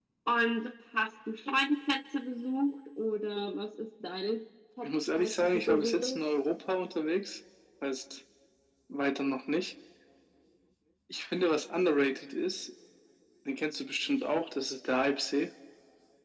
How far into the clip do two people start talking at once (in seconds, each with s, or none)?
4.8 s